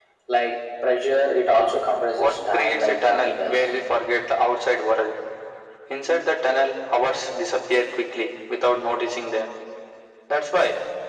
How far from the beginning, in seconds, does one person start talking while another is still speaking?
2 s

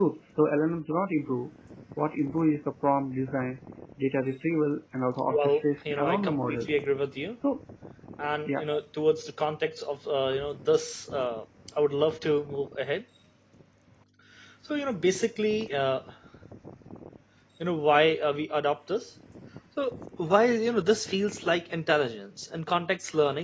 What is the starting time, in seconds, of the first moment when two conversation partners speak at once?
5 s

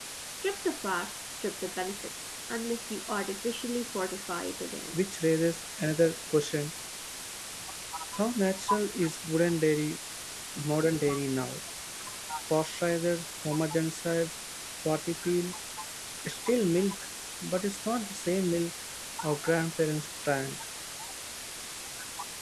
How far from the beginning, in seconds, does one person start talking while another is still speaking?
none

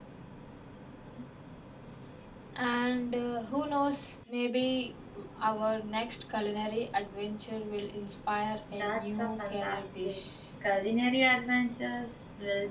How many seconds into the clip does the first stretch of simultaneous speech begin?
9 s

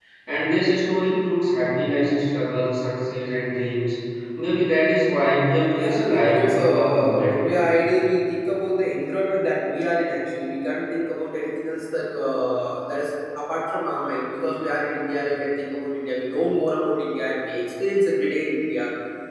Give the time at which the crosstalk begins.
6 s

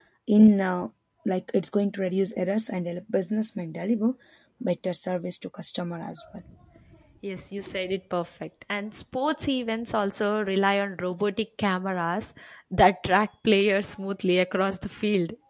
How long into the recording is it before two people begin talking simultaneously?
none

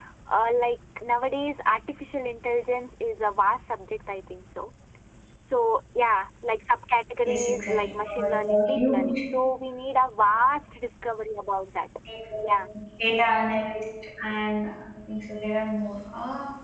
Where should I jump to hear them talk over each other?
7 s

